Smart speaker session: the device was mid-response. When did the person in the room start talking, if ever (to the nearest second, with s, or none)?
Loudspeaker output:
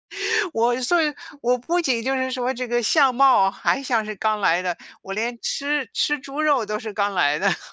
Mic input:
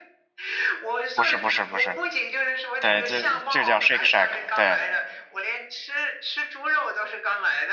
1 s